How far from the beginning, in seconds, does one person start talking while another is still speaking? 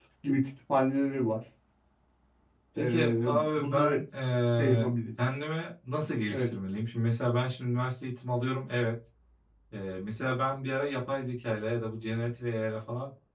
2.8 s

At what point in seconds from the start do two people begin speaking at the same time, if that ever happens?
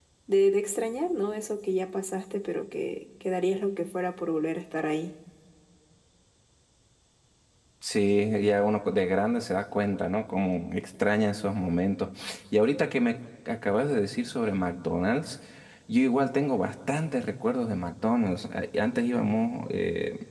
none

